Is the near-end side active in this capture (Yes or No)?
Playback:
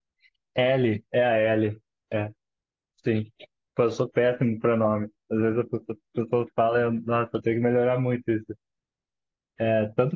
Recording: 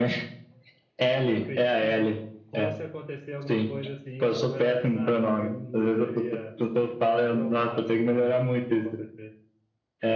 Yes